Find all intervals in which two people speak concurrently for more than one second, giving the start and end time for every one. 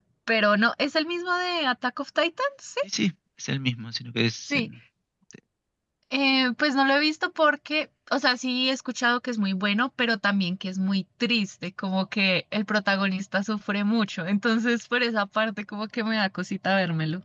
none

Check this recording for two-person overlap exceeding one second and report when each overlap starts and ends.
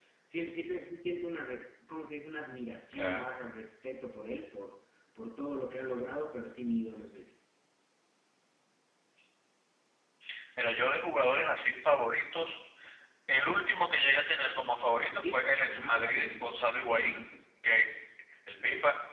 15.1-16.5

